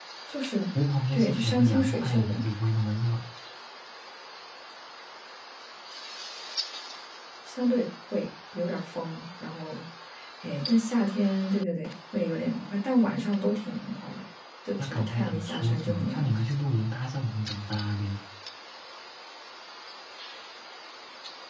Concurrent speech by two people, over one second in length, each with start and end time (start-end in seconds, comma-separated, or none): 1.1-2.4, 14.8-16.4